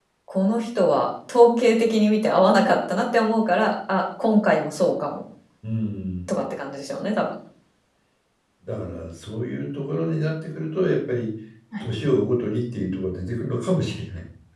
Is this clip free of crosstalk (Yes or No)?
Yes